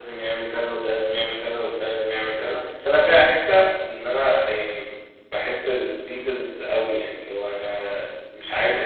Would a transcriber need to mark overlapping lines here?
No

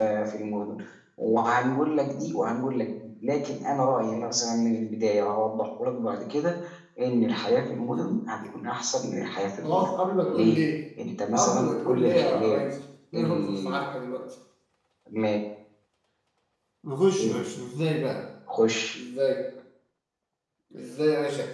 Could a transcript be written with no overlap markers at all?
No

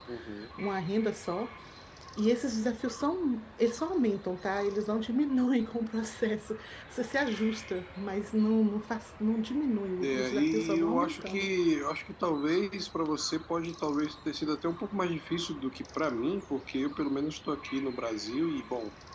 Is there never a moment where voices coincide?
No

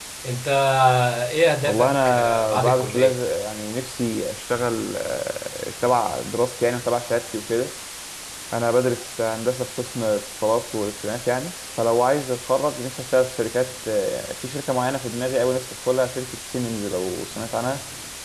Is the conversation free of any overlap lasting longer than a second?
No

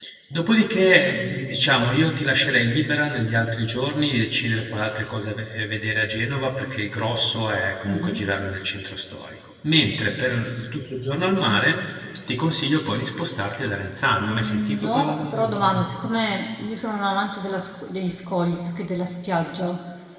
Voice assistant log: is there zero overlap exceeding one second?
No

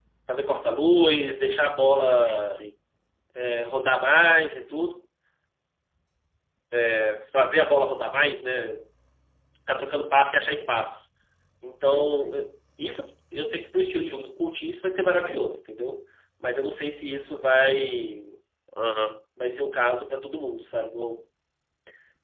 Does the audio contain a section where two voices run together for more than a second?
No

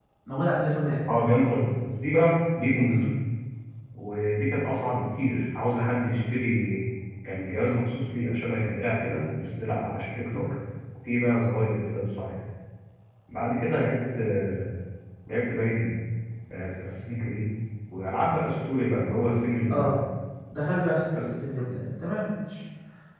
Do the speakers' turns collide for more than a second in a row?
No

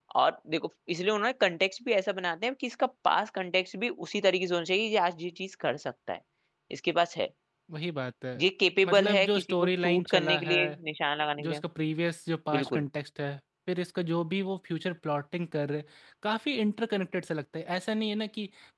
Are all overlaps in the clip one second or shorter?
No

